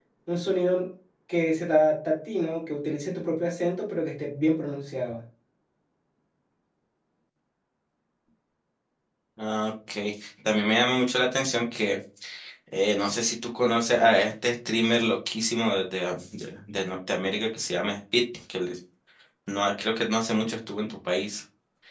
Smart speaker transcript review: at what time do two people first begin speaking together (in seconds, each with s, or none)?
none